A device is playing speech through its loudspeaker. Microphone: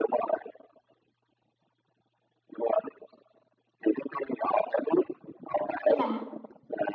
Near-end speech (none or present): present